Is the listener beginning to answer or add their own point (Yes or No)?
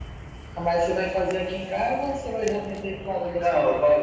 Yes